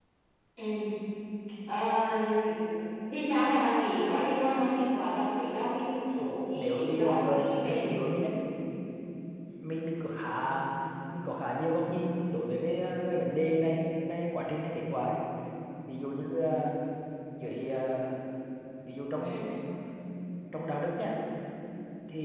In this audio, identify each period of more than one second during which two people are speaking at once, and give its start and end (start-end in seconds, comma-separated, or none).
6.5-7.9